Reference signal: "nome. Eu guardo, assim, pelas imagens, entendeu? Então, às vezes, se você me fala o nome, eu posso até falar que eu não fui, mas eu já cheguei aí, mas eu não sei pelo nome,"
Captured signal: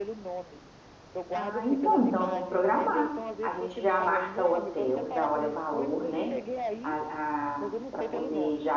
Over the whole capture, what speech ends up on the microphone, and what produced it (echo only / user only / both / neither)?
both